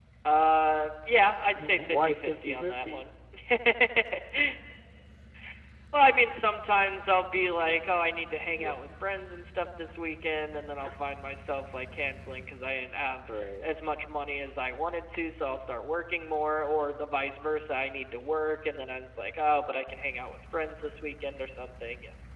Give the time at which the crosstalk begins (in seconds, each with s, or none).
1.6 s